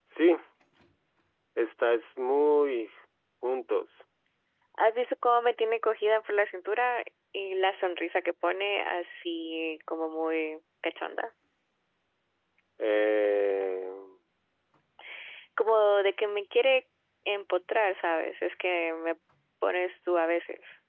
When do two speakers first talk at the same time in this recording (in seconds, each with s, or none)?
none